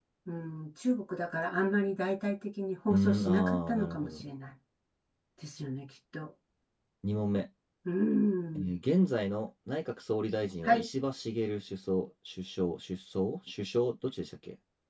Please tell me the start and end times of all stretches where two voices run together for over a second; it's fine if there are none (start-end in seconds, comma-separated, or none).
2.9-4.2